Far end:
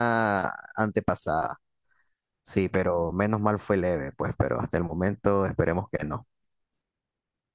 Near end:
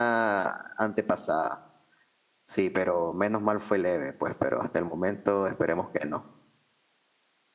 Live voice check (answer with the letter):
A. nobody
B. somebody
A